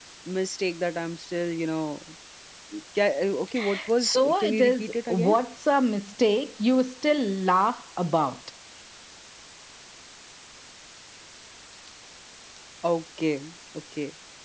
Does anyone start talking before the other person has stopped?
Yes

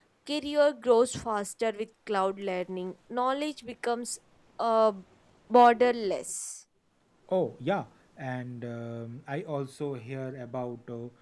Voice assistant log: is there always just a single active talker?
Yes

